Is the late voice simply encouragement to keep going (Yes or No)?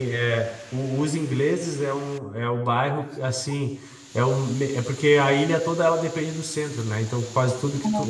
Yes